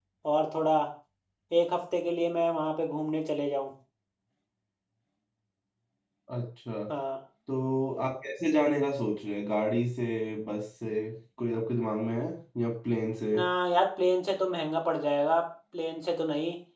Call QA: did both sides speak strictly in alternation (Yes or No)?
Yes